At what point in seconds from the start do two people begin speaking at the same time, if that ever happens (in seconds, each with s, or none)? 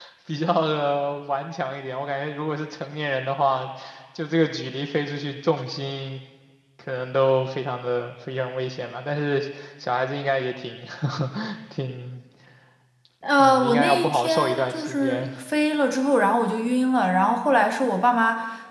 13.4 s